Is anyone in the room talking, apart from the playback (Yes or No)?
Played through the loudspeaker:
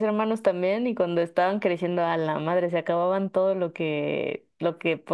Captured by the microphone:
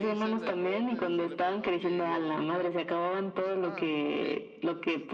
Yes